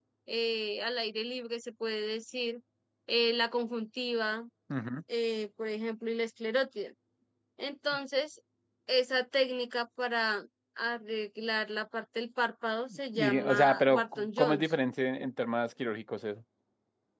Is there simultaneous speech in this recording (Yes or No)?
Yes